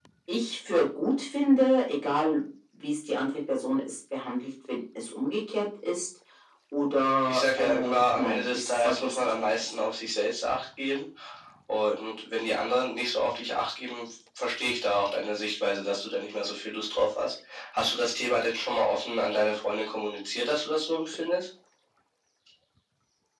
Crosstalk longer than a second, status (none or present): present